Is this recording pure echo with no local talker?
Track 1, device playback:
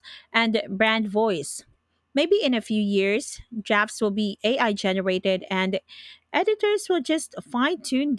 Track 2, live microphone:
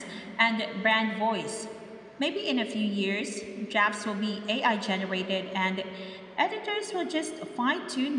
Yes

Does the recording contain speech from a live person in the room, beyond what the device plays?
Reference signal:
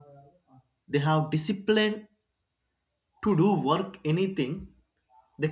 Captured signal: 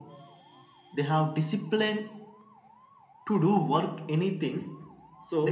Yes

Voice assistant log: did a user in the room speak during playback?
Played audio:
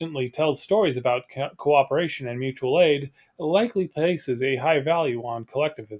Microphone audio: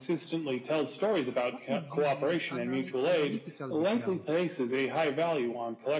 Yes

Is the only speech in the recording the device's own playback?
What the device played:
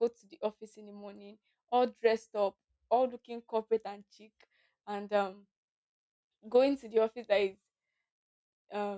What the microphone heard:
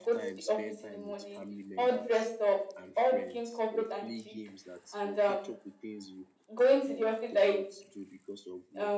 No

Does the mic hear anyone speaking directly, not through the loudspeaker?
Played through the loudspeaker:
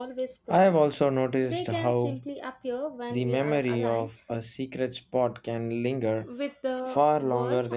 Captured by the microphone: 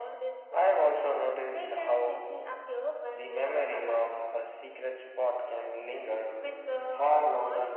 No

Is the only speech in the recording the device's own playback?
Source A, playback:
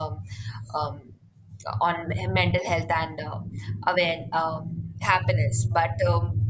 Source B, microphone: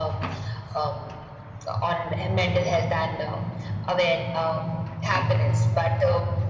Yes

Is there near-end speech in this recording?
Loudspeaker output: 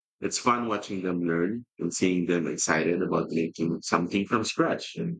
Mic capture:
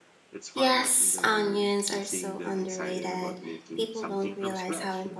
Yes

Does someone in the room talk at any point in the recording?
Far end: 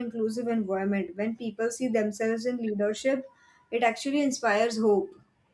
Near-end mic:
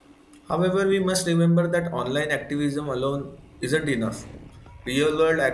Yes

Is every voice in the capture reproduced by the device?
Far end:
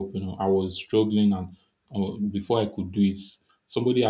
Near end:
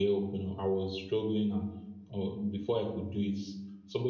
Yes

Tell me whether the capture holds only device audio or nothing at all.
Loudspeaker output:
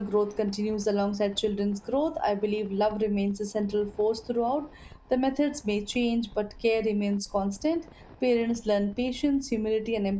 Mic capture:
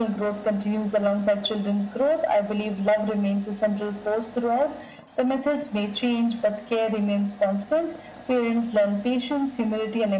Yes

